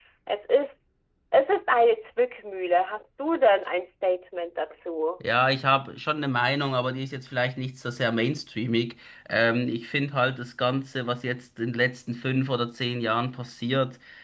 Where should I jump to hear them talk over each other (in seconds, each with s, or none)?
none